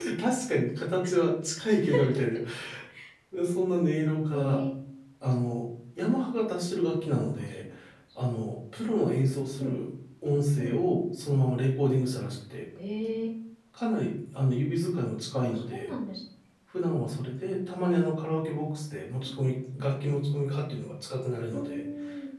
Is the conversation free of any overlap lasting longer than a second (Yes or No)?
Yes